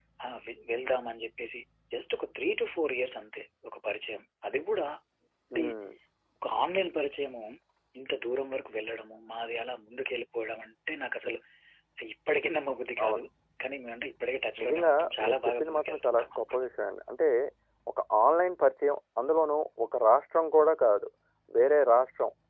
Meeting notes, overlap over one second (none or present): present